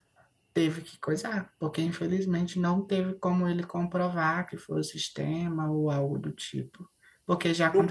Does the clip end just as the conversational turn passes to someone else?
Yes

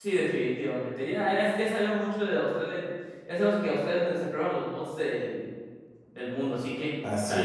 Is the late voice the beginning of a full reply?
Yes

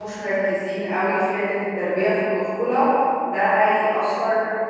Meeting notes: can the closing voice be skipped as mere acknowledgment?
Yes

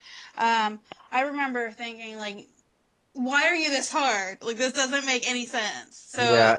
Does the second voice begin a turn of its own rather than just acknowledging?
Yes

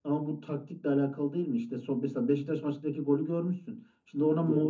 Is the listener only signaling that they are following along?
Yes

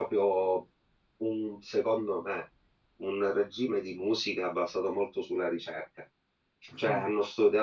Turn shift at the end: No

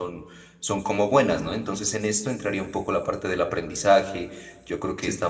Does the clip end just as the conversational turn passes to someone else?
No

